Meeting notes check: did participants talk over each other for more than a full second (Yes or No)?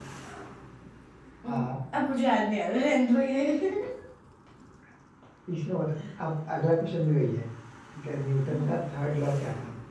No